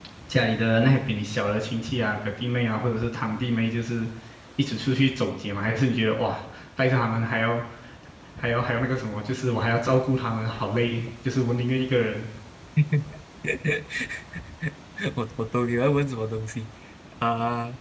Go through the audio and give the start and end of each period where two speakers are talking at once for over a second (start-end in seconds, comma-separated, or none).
none